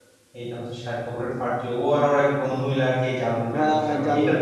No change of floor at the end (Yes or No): No